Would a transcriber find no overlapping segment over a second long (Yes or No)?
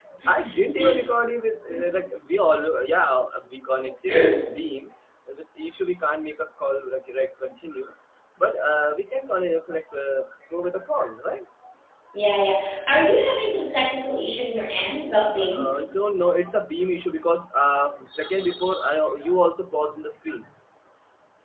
Yes